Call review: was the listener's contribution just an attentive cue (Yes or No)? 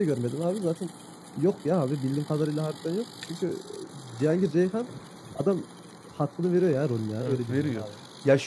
No